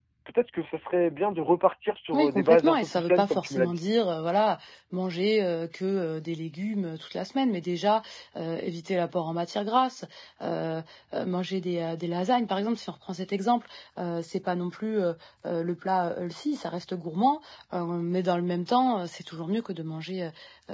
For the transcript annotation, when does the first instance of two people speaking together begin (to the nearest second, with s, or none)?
2 s